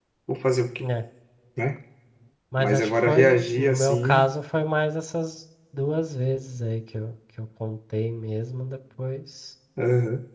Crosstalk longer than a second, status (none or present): present